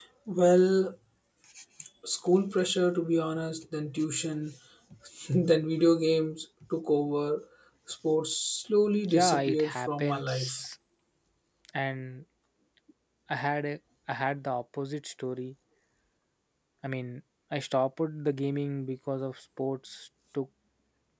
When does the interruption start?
9.0 s

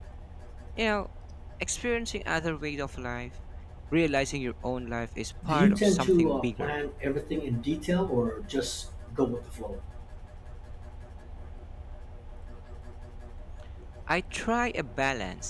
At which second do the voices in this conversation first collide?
5.4 s

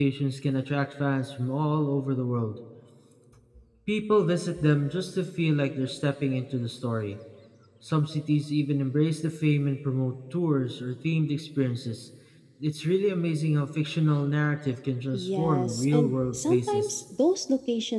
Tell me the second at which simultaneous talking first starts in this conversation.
15.1 s

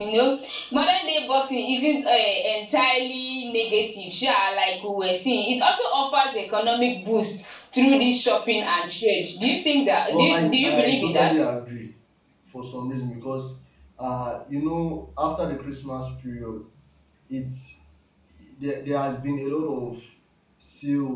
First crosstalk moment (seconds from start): 10.1 s

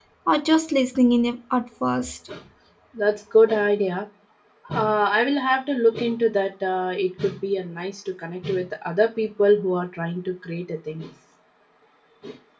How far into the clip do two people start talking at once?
none

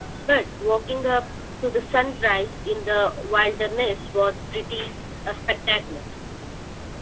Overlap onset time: none

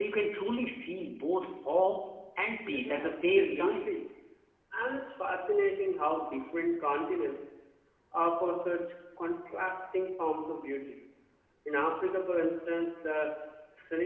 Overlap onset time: 2.6 s

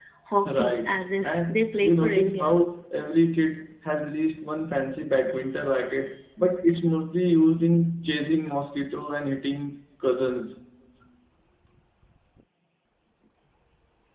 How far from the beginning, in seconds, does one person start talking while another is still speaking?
0.6 s

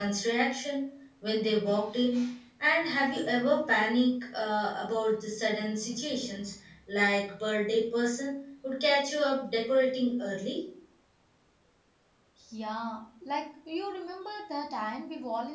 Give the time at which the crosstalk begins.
none

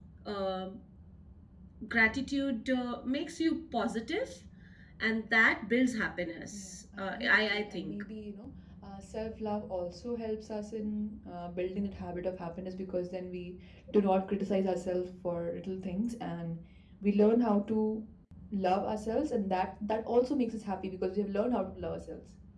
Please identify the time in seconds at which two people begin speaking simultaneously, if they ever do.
6.5 s

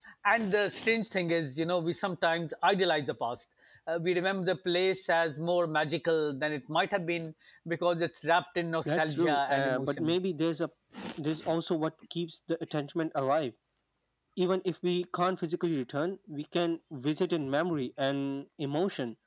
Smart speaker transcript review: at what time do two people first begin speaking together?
8.8 s

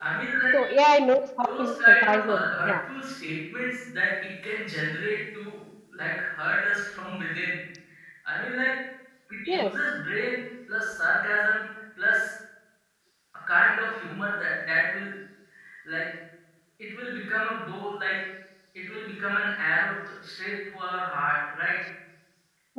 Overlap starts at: 1.4 s

